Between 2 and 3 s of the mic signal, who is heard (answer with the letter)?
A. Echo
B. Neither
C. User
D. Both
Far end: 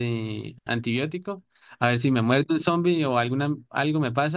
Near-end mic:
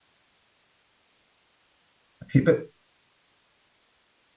C